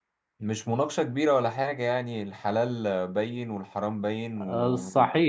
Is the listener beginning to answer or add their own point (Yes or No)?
Yes